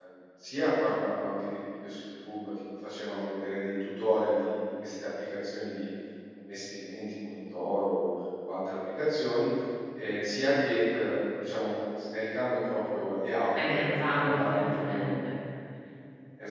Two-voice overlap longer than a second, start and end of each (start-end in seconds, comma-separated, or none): 13.7-15.3